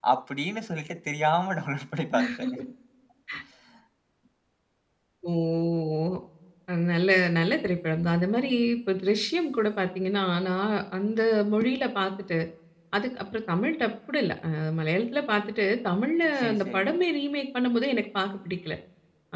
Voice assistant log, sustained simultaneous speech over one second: none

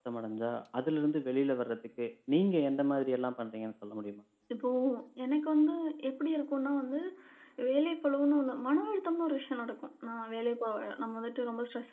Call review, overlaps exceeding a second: none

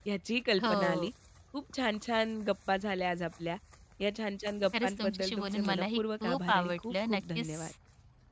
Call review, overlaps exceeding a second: present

